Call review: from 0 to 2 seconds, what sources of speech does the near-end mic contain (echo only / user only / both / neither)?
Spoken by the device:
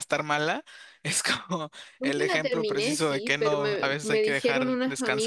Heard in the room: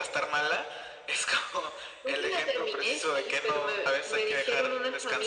echo only